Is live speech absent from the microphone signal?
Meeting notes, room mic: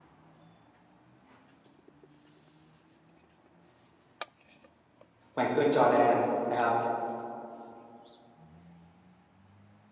No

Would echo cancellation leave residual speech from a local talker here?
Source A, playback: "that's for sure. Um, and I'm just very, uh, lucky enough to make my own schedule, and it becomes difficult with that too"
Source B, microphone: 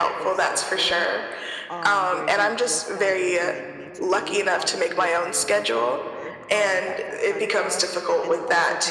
Yes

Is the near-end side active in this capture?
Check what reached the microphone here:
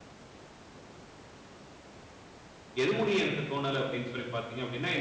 Yes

